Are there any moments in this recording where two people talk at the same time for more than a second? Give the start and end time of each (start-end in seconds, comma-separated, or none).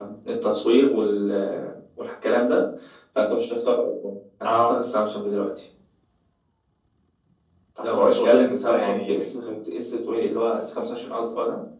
7.9-9.3